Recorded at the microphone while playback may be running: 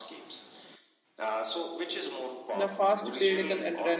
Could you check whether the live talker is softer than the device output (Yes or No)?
No